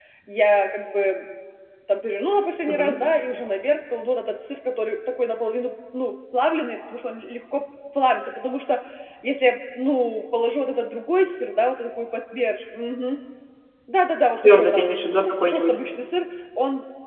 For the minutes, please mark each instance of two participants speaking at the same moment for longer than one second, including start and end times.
14.4-15.8

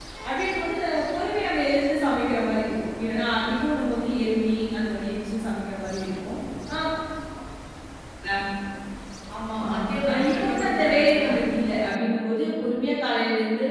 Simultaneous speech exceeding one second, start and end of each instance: 9.7-11.3

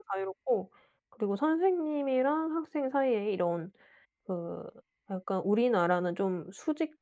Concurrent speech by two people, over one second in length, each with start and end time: none

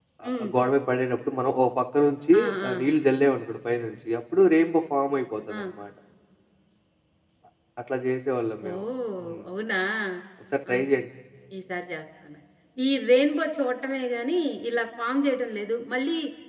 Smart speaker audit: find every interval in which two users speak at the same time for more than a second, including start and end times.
none

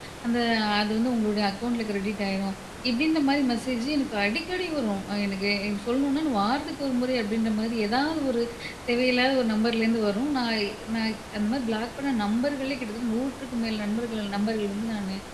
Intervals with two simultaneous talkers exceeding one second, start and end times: none

